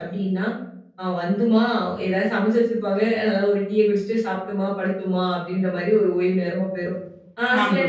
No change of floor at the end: Yes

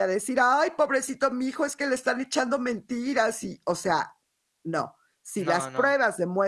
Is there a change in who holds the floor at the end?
No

